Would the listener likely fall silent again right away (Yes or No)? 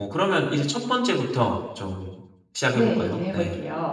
No